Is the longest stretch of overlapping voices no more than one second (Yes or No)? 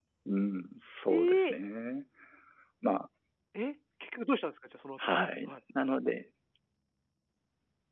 Yes